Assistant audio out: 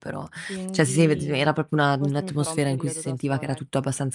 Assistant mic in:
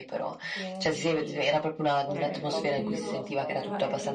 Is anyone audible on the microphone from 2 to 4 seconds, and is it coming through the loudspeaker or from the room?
both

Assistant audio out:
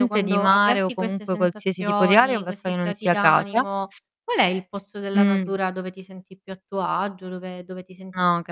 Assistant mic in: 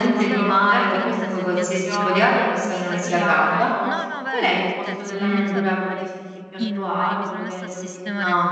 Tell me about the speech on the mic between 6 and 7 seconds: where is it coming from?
both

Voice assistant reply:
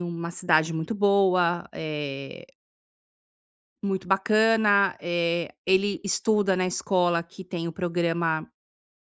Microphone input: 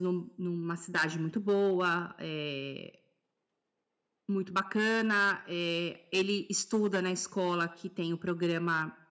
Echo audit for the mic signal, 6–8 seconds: echo only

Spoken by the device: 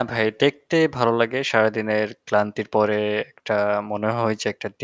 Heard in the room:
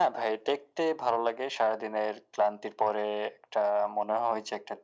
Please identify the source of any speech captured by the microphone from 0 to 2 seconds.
echo only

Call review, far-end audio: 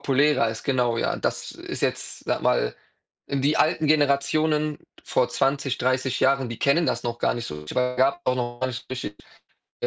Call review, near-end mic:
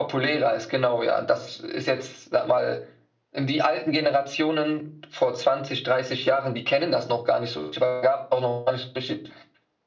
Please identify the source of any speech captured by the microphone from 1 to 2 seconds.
echo only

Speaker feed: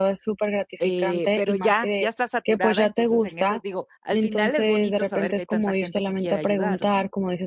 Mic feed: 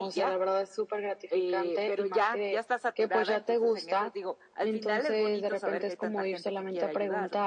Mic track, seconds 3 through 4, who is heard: echo only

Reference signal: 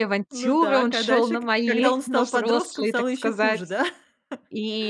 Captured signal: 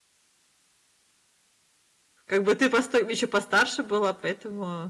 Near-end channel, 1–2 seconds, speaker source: neither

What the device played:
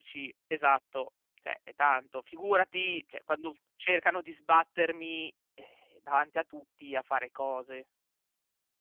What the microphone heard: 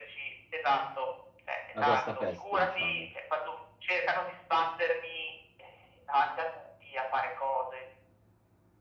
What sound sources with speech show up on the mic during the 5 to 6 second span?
echo only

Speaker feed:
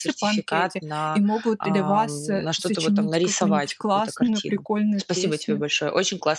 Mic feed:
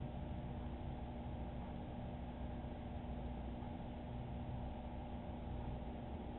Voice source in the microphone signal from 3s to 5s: neither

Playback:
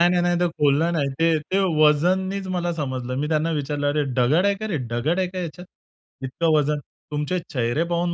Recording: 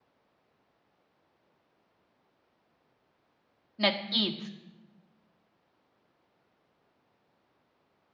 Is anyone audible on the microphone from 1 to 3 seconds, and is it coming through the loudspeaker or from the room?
neither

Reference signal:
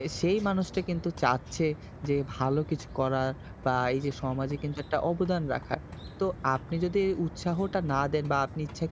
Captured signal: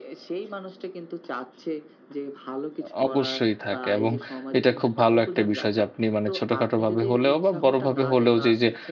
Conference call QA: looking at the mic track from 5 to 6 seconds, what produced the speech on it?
both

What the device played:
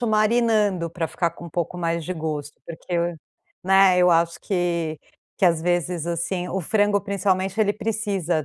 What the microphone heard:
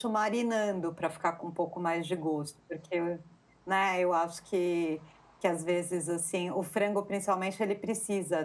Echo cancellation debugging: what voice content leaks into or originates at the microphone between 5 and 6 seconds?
echo only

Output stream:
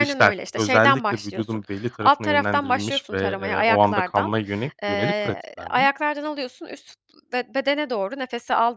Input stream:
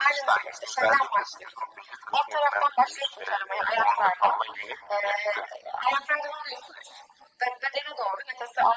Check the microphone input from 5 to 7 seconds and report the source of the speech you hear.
echo only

